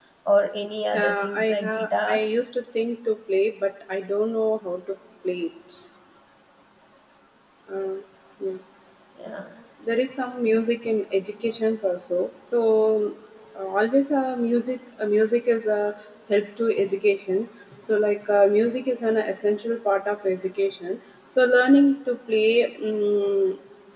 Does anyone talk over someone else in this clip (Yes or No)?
Yes